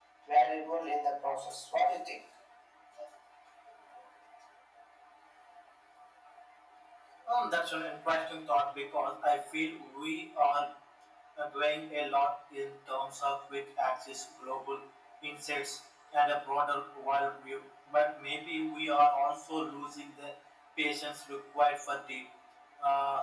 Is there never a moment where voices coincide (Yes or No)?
Yes